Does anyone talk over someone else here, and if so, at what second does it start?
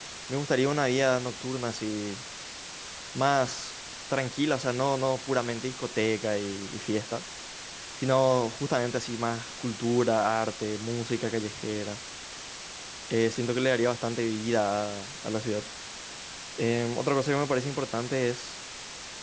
none

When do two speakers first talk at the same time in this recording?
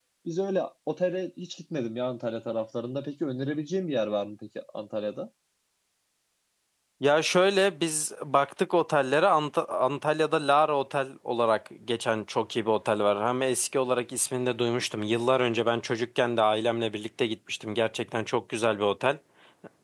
none

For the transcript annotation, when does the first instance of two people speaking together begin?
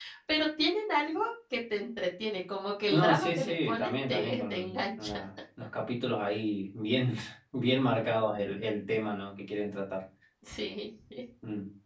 2.9 s

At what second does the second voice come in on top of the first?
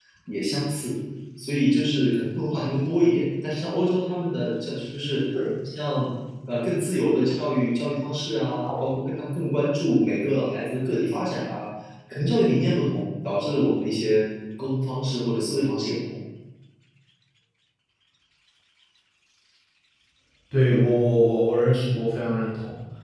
none

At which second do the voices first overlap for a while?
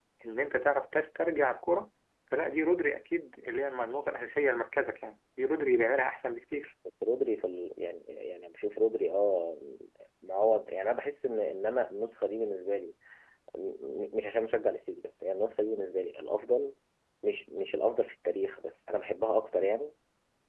none

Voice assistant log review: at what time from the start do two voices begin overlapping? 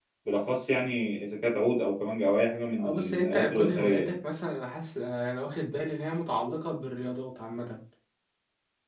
2.8 s

